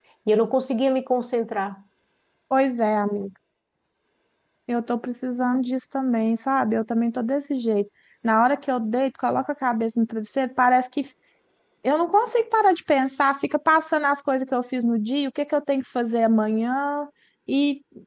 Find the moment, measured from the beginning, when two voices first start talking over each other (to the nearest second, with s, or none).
none